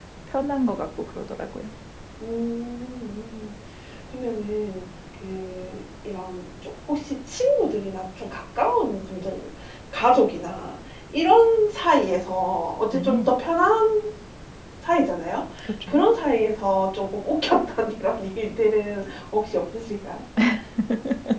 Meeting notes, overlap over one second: none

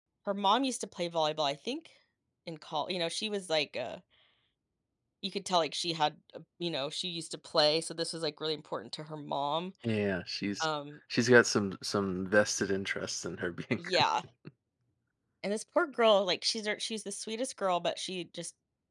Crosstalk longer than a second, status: none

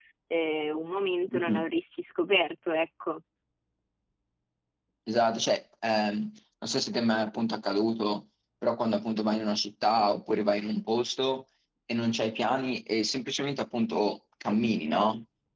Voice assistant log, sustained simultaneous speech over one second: none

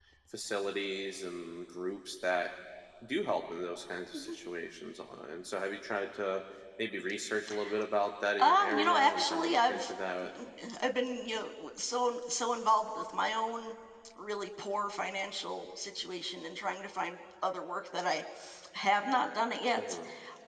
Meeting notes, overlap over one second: present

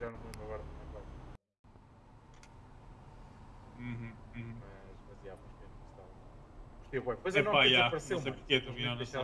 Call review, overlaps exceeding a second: present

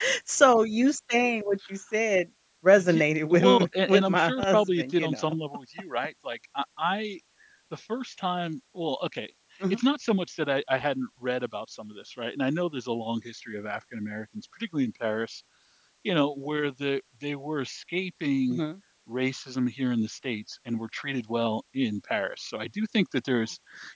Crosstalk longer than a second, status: present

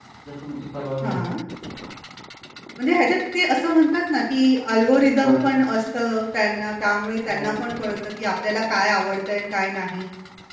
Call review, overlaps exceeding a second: none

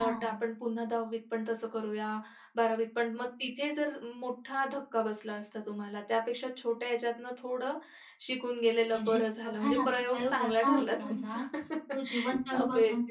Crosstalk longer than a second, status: present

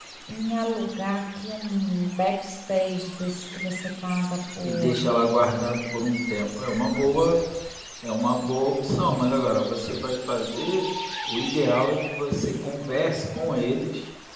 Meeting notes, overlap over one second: none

